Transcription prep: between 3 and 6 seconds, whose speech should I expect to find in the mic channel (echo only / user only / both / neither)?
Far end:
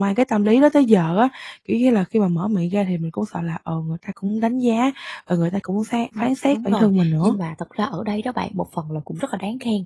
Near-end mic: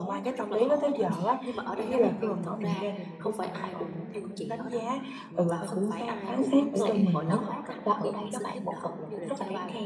both